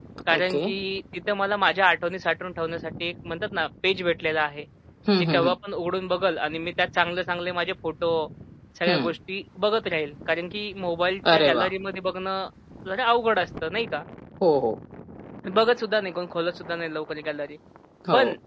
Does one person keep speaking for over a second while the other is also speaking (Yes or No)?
No